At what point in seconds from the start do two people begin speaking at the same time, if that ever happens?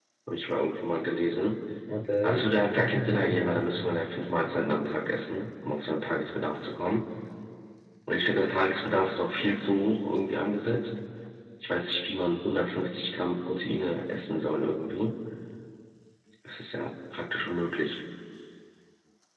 2.2 s

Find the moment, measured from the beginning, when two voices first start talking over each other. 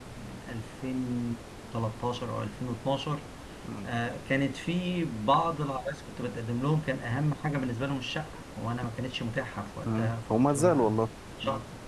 9.8 s

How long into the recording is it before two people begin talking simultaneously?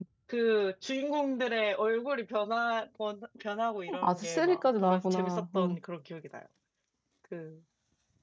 3.9 s

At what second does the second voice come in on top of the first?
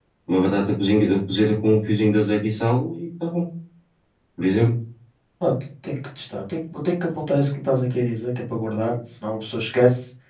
none

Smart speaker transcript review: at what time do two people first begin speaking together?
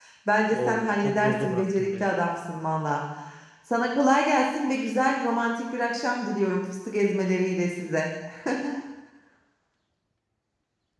0.5 s

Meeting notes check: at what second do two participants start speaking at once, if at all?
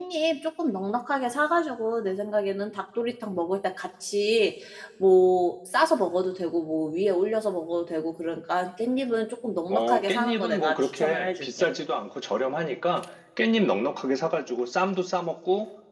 9.7 s

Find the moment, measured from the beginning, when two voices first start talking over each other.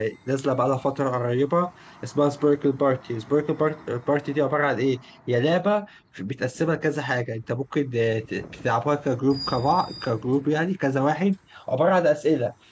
none

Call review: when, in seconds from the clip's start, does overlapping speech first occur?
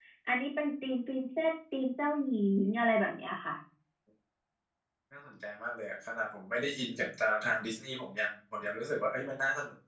none

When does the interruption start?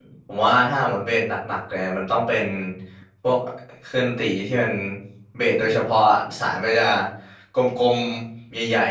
none

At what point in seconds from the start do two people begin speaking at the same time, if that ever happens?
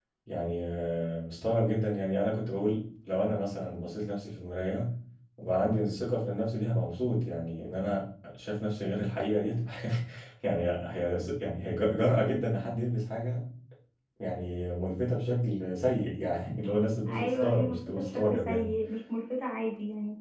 17.1 s

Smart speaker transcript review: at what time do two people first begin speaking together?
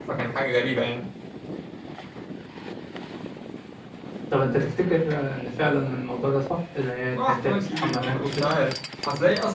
7.1 s

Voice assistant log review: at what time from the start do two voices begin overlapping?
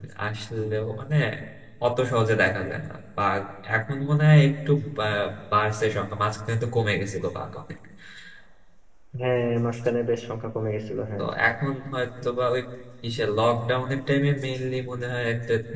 none

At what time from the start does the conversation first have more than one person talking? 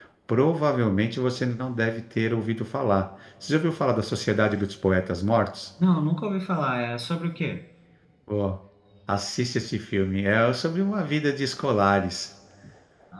none

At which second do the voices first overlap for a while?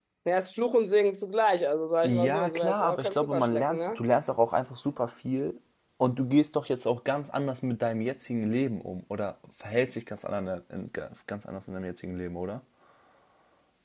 2.0 s

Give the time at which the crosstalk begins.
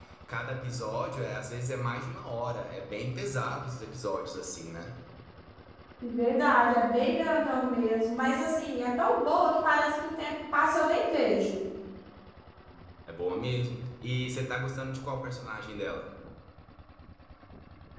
none

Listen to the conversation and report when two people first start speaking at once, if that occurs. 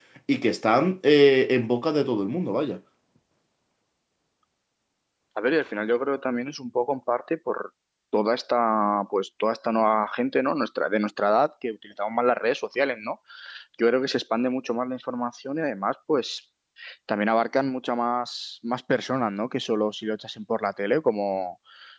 none

